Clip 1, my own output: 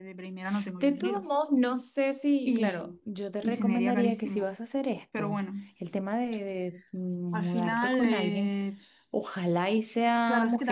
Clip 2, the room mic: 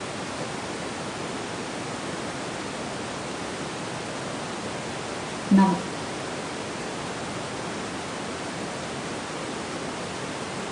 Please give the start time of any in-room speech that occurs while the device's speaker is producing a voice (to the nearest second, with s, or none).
5 s